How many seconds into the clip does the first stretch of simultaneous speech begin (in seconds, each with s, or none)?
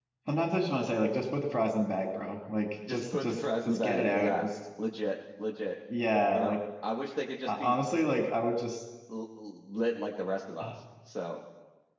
2.9 s